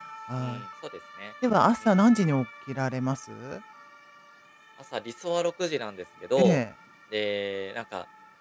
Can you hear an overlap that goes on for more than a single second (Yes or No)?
No